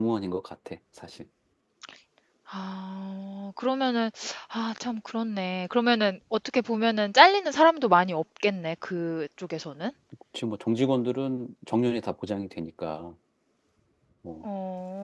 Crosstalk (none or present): none